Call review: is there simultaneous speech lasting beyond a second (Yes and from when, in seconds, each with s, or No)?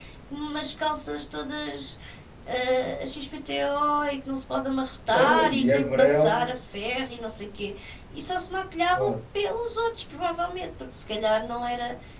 Yes, from 5.1 s